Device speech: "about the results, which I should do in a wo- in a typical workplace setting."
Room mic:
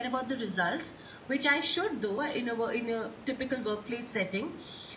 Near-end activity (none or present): none